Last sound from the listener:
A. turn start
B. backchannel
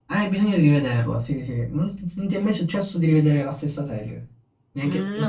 A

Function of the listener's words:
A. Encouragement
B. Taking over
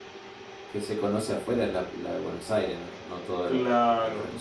B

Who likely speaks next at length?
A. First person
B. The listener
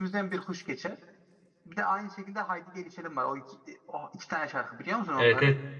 B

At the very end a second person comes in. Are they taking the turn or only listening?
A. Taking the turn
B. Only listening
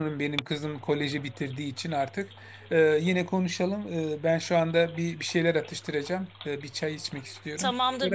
A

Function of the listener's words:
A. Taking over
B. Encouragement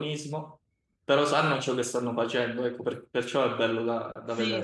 A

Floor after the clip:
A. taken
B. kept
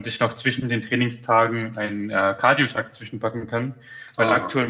B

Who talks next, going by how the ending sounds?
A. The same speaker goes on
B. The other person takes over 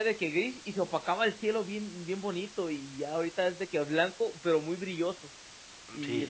B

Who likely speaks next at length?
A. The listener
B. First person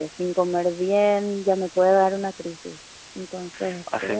A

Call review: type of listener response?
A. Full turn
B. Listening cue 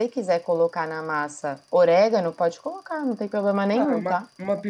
A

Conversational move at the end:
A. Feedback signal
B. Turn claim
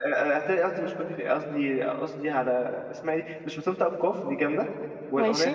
A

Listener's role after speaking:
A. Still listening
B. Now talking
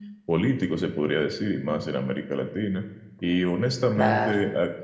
A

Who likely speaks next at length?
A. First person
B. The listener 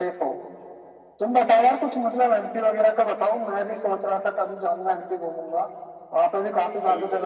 B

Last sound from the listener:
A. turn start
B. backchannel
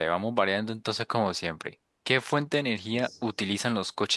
B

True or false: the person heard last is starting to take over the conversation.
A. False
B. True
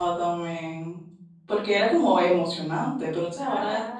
A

